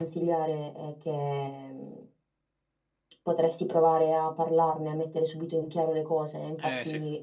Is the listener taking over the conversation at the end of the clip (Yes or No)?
No